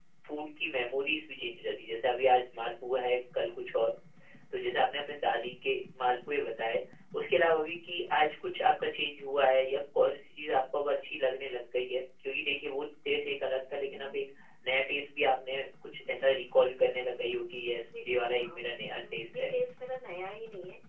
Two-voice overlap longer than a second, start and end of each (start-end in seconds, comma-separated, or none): 18.1-19.5